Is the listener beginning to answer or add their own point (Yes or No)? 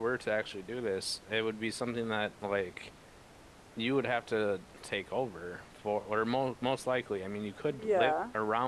Yes